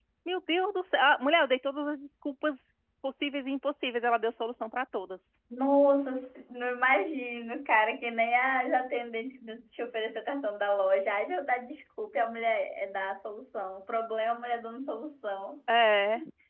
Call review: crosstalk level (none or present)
none